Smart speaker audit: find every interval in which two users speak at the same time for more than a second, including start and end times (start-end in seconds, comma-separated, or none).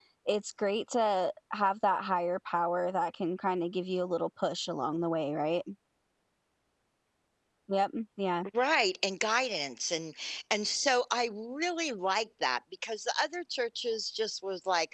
none